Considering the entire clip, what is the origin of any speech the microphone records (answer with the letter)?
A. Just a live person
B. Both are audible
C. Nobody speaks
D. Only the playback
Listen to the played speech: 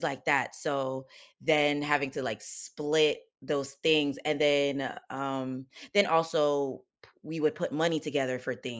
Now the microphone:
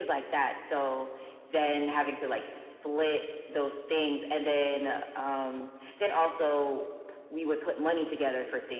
D